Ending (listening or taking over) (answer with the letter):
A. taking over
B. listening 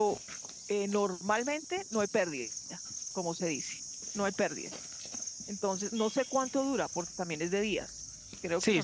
A